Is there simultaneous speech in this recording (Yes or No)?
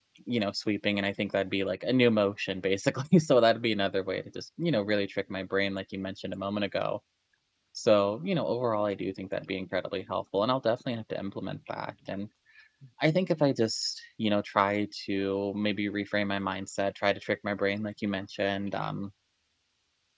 No